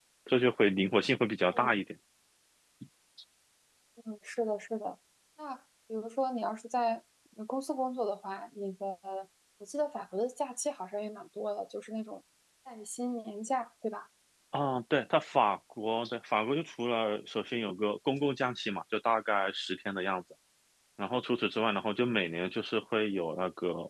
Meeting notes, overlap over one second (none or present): none